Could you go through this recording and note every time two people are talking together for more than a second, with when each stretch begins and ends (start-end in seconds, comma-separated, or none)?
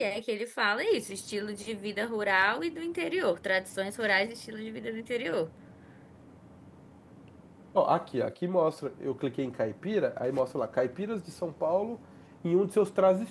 none